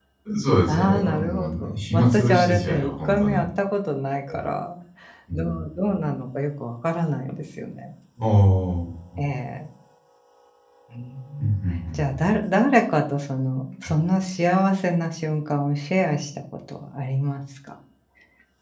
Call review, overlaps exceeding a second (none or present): present